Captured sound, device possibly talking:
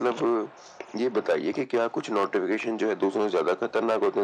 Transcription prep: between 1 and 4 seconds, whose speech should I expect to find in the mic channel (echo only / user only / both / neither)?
echo only